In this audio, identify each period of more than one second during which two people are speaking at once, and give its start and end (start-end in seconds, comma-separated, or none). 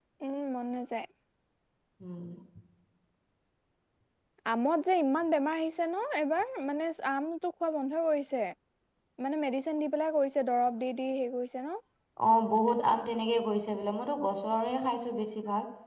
none